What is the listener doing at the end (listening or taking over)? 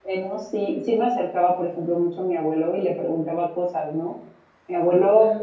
listening